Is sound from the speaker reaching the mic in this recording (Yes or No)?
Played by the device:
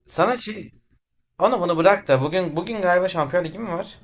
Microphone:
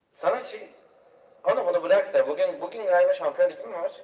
Yes